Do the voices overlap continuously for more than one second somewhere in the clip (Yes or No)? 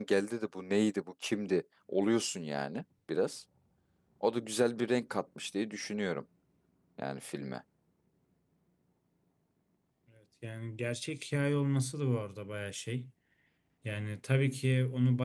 No